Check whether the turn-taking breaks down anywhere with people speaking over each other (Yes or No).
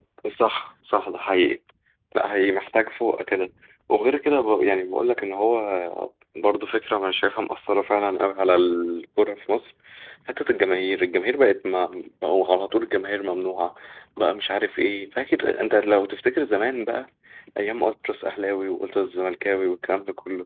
No